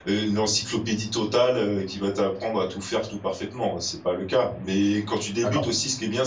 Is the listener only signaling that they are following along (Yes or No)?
Yes